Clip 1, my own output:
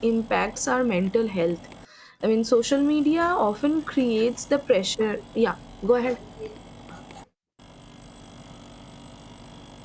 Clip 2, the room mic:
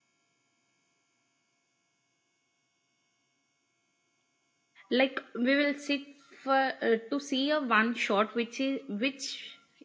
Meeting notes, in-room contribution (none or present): present